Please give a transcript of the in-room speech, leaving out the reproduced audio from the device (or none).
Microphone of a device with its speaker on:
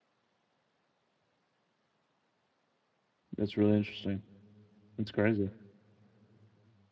That's really interesting. That's crazy.